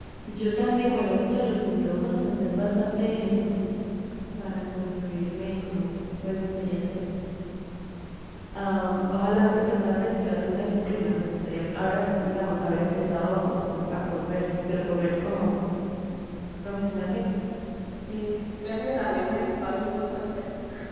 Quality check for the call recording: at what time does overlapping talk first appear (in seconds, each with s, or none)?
none